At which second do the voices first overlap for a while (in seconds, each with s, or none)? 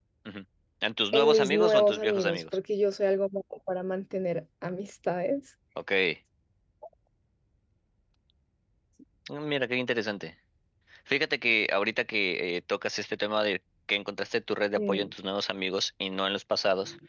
1.1 s